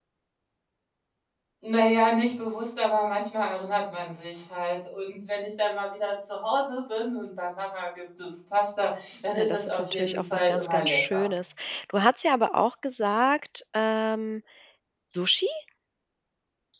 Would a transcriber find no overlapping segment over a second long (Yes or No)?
No